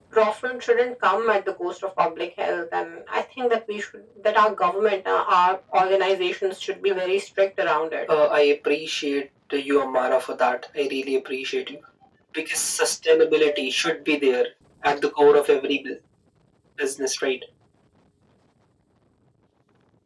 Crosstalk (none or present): none